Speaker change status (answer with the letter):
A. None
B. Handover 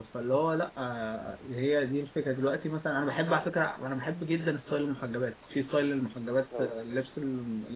A